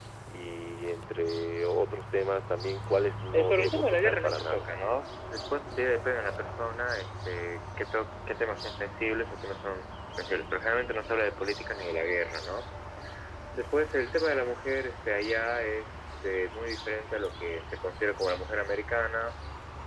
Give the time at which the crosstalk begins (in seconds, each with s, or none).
3.3 s